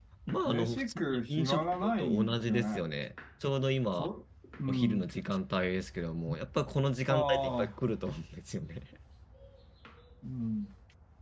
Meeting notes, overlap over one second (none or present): present